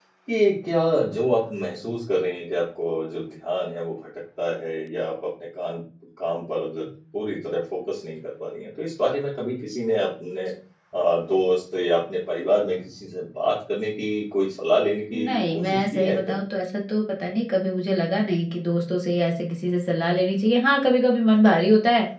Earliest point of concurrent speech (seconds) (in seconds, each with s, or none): 15.1 s